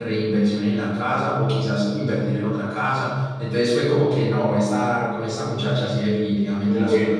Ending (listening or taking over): taking over